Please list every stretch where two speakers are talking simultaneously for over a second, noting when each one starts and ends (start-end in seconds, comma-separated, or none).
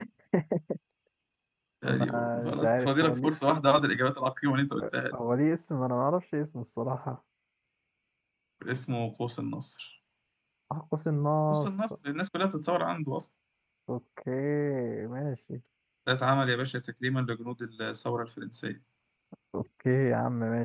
1.8-3.3